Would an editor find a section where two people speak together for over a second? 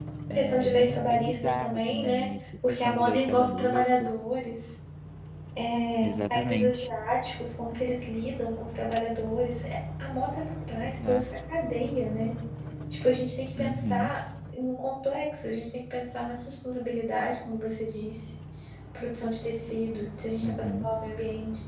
Yes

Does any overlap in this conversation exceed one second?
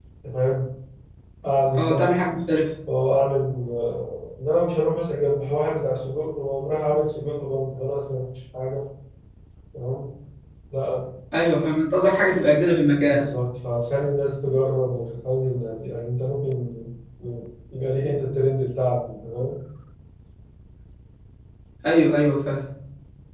No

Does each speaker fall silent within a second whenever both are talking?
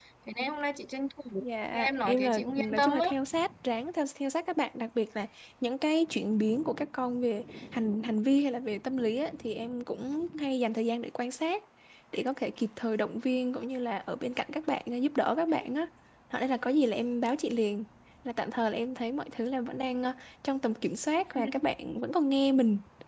No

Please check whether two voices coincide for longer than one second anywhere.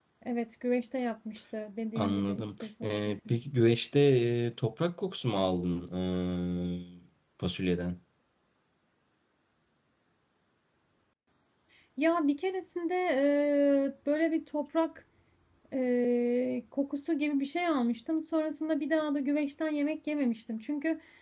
Yes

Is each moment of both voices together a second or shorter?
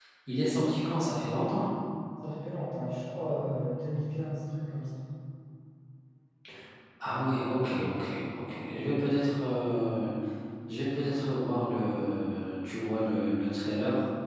Yes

